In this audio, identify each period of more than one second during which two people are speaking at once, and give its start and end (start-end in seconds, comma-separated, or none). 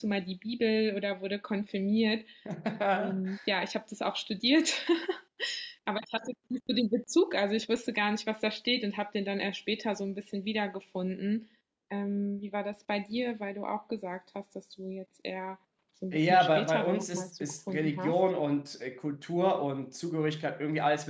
16.1-18.2